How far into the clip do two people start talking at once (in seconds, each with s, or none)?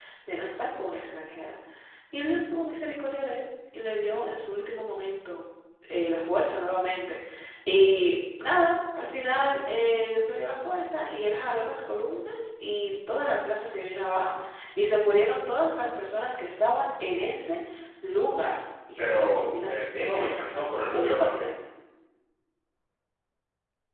19.0 s